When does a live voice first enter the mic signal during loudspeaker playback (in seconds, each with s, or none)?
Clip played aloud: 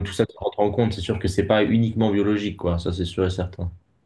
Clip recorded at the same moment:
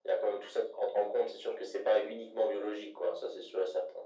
none